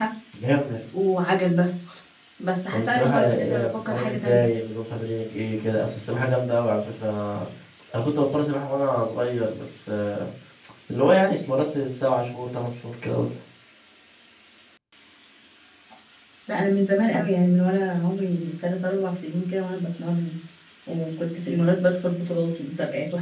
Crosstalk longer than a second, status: present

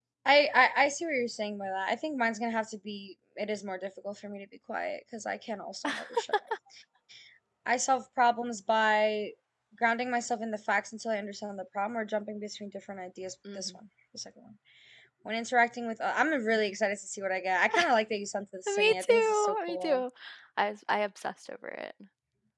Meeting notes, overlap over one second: present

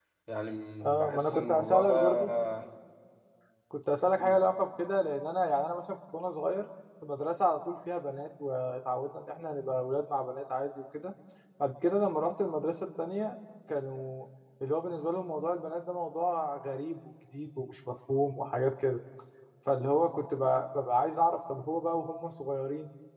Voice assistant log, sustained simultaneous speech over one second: present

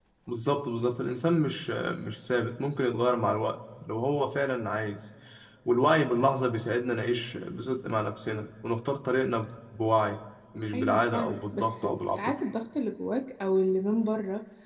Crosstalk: present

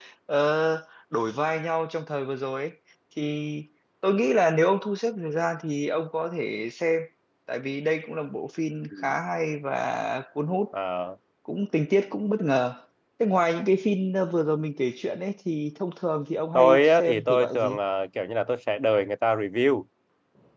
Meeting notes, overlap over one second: present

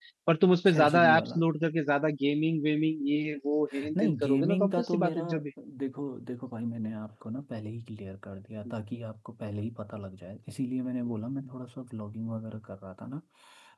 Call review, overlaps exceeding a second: present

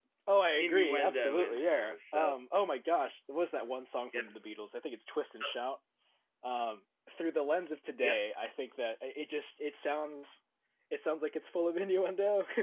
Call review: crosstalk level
present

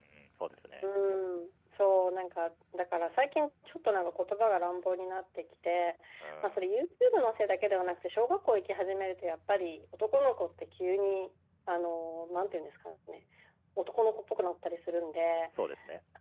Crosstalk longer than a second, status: none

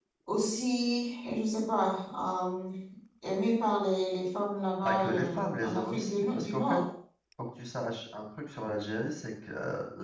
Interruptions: present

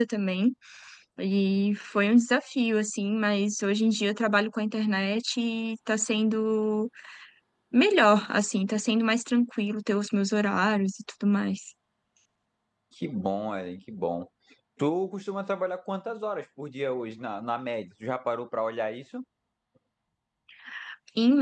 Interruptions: none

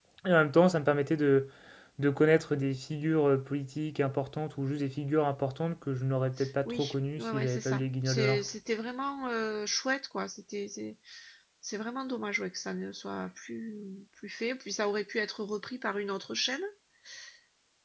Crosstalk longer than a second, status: present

